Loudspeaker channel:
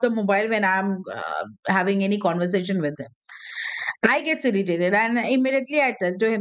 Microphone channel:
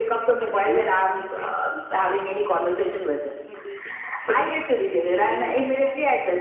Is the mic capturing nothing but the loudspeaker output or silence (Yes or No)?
No